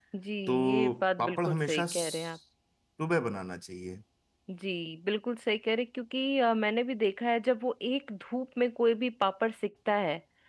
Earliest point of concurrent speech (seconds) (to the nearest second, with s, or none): 1 s